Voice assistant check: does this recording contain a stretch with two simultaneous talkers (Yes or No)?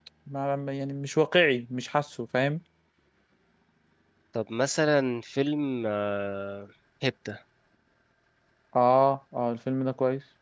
No